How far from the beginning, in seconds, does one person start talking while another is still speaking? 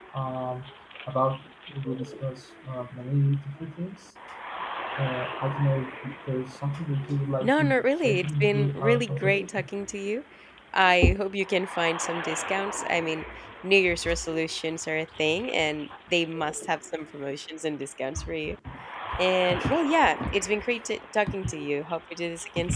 7.4 s

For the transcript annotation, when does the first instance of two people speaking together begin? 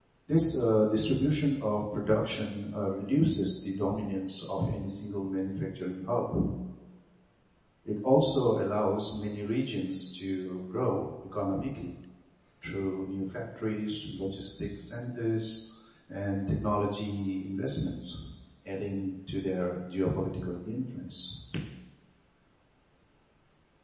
none

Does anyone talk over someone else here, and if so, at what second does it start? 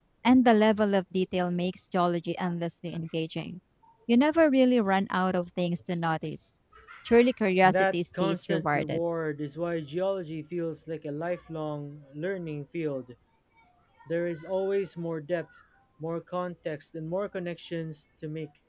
7.6 s

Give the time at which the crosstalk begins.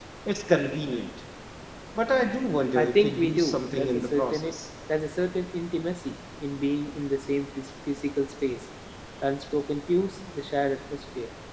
2.8 s

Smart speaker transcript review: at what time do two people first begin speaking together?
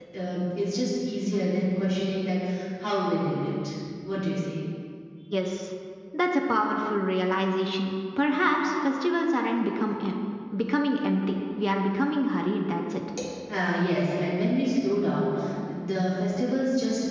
none

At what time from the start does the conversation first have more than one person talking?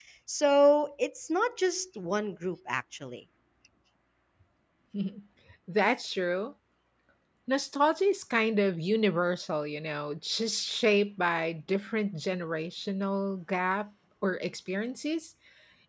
none

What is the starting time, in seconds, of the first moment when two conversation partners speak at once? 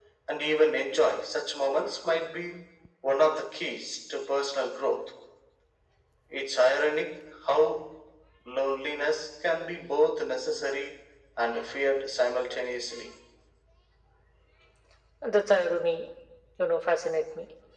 none

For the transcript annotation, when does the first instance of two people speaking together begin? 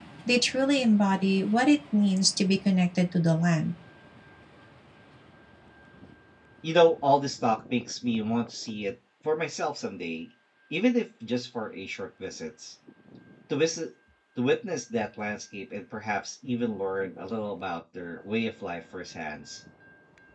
none

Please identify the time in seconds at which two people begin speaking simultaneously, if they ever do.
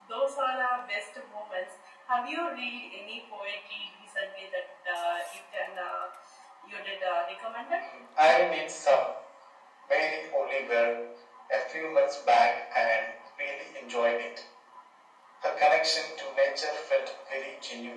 none

